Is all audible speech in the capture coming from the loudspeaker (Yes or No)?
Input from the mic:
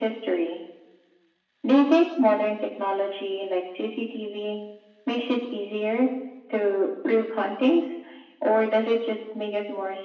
Yes